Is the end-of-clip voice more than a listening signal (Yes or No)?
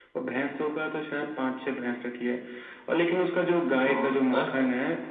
No